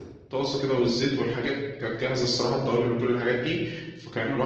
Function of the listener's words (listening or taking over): listening